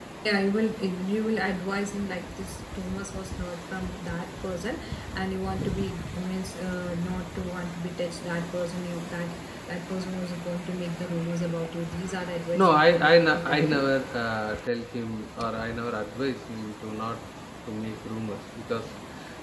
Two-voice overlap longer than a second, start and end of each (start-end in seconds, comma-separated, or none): 12.6-13.9